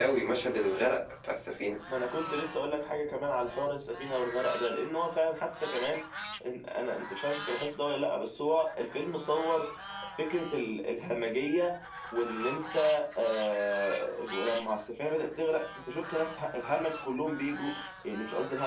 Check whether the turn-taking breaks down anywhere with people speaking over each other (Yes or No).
No